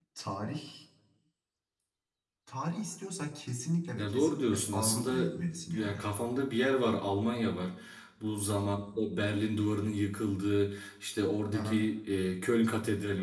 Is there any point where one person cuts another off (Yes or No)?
Yes